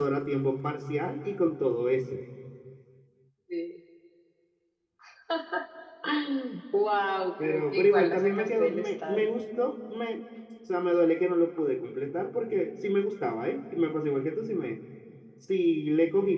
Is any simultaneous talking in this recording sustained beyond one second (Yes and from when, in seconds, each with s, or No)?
Yes, from 7.4 s